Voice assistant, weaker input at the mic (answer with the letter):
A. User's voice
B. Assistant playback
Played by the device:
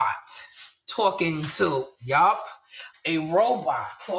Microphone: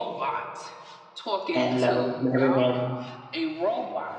B